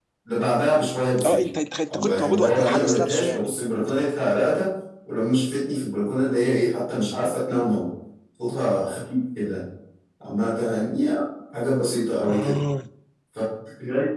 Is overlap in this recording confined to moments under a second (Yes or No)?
No